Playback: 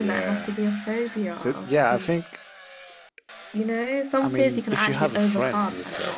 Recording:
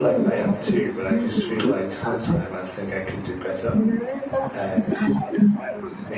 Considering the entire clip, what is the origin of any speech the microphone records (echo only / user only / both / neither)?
both